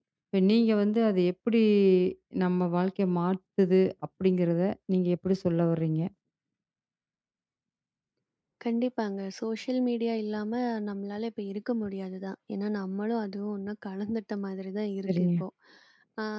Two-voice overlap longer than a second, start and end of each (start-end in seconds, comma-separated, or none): none